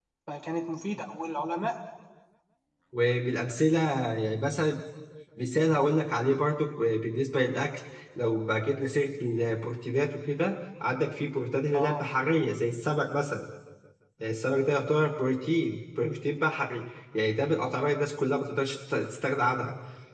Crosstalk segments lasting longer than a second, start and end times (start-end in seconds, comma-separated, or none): none